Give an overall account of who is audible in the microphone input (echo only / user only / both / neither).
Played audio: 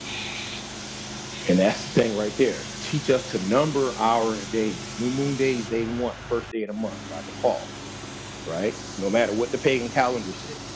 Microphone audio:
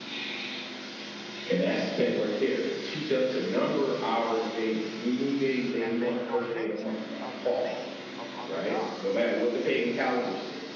both